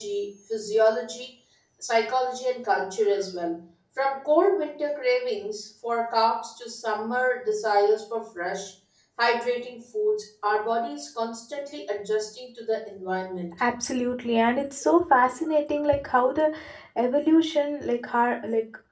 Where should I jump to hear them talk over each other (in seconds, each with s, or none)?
none